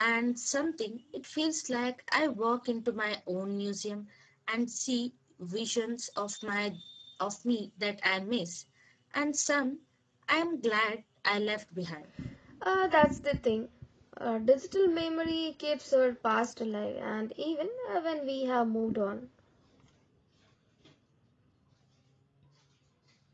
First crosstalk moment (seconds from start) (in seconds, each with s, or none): none